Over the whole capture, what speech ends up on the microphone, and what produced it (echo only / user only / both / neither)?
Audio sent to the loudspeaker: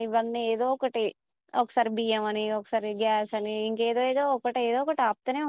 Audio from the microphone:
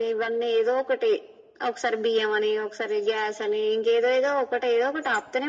echo only